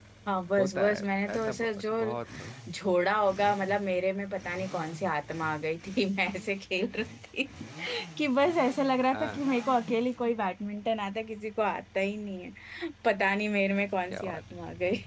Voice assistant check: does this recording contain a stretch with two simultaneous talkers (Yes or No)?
Yes